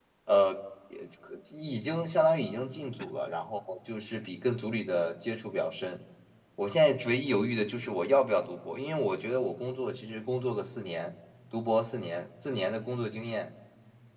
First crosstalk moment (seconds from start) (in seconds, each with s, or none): none